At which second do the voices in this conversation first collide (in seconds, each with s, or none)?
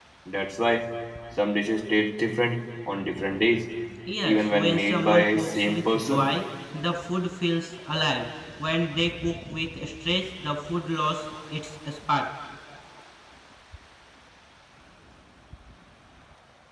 4.2 s